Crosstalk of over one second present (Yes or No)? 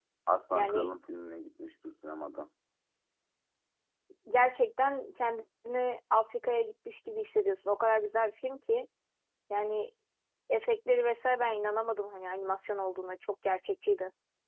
No